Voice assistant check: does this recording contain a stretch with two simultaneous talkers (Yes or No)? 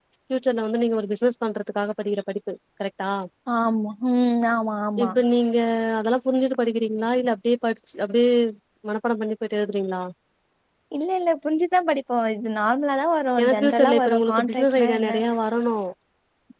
Yes